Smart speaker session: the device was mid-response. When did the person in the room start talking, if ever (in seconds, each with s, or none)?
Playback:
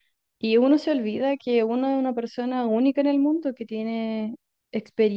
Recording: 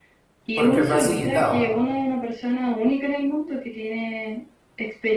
0.6 s